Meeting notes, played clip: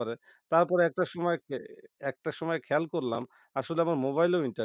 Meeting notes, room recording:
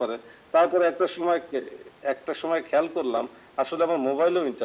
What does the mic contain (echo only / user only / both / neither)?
echo only